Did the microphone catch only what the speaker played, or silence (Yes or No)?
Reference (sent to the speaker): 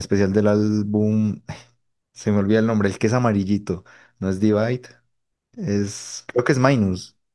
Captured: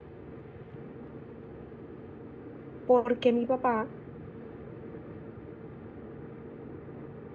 No